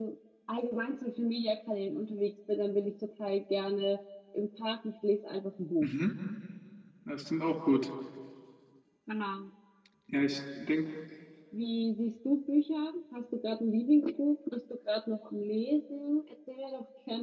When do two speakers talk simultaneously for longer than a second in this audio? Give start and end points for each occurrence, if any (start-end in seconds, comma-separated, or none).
none